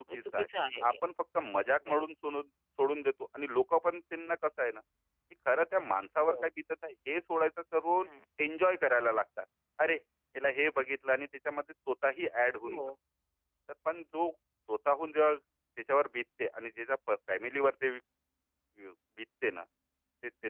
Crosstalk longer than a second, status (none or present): none